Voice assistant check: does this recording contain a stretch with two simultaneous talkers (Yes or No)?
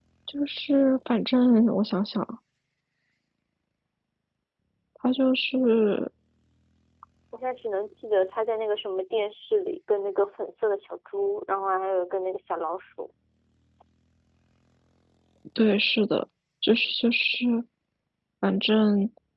No